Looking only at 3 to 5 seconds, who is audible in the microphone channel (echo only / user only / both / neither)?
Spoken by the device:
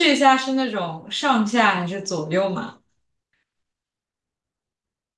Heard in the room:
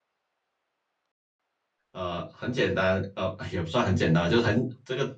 user only